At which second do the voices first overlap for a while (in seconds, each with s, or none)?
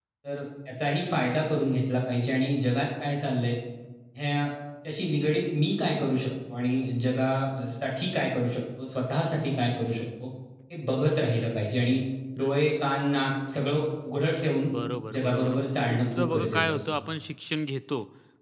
15.1 s